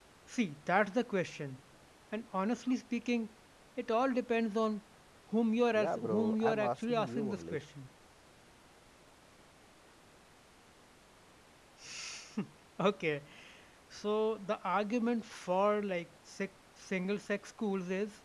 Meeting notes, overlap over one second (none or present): present